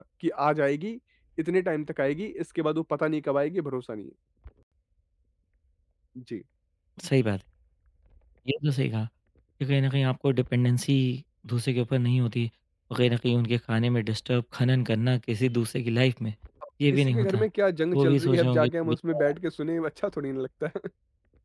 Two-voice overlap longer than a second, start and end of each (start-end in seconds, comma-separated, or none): 17.9-19.3